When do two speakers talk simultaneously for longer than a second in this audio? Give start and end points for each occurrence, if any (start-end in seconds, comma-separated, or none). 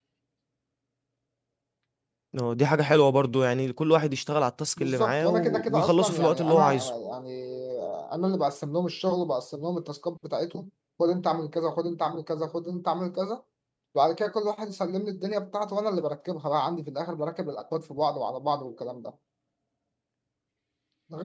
4.8-6.7